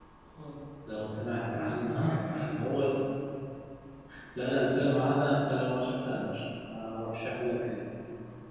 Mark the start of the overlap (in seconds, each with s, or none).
1.5 s